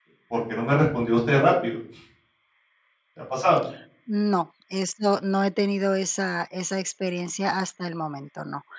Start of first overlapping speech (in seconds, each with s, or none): none